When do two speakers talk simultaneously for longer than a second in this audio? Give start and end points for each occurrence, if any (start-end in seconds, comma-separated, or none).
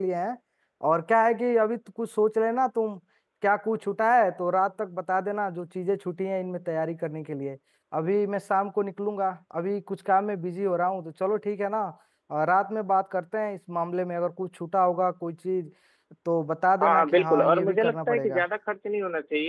16.8-18.4